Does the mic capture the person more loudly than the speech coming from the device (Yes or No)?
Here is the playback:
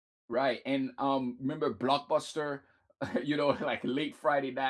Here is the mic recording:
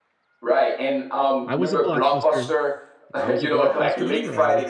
No